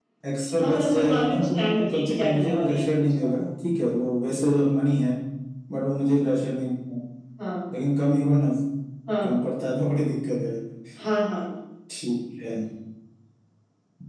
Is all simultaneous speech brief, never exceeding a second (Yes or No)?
No